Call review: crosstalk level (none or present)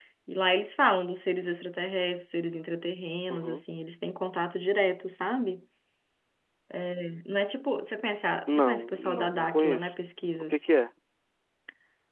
present